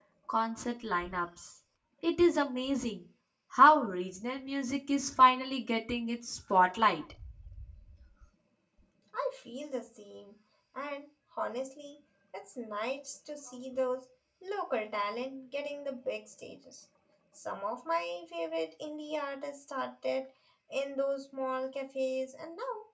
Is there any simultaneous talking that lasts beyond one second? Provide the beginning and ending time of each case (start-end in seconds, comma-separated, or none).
none